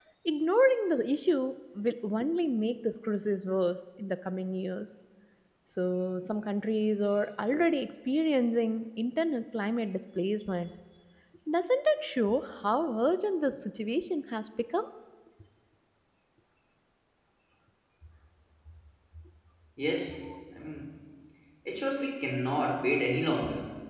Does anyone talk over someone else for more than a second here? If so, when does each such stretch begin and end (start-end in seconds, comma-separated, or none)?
none